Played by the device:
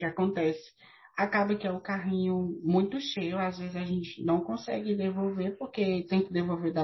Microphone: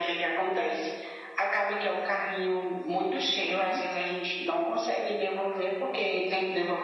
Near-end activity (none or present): present